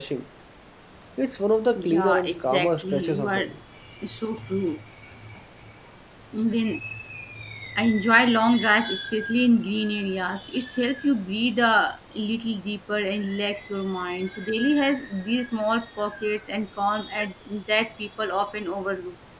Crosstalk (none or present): present